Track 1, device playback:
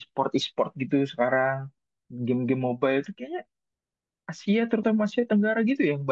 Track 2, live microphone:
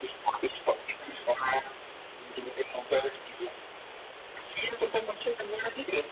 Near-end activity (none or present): none